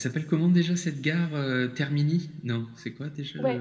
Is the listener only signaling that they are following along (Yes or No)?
No